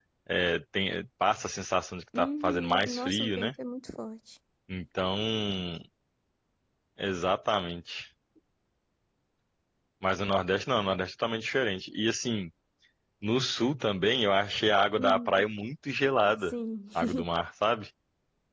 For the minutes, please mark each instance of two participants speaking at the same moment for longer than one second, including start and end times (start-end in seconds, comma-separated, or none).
2.2-3.5